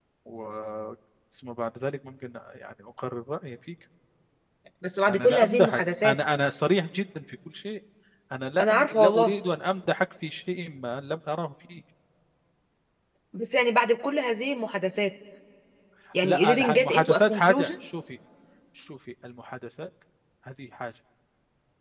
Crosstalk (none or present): present